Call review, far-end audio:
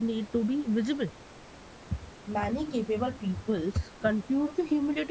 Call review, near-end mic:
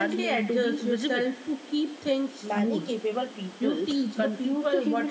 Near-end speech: present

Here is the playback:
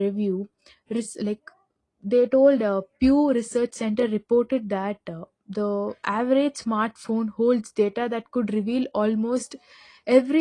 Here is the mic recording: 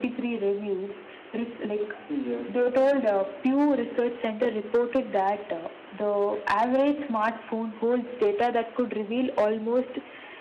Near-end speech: present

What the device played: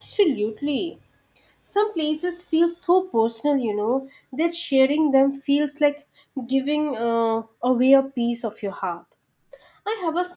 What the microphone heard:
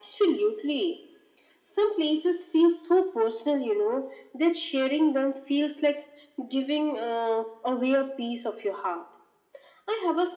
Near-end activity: none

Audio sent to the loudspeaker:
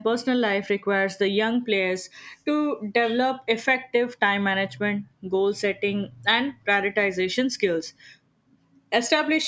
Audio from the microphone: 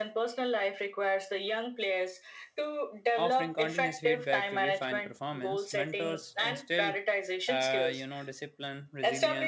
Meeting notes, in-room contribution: present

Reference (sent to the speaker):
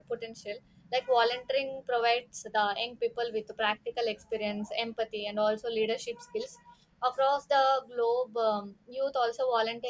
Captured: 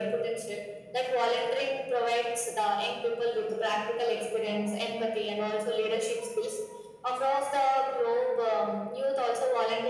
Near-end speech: none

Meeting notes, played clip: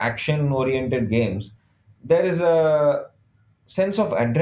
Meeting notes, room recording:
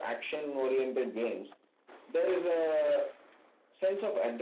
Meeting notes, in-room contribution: none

